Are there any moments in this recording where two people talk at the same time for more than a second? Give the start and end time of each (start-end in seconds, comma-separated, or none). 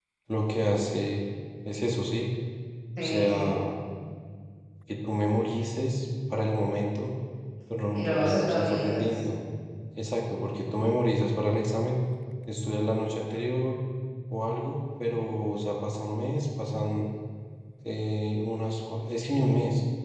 7.9-9.2